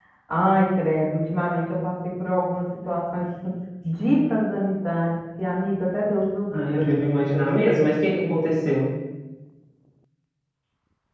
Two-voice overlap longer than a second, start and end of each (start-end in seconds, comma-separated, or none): none